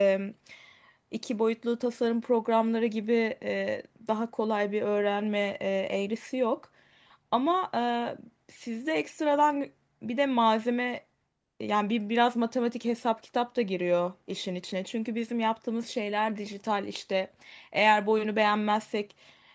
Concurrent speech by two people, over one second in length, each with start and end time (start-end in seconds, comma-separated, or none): none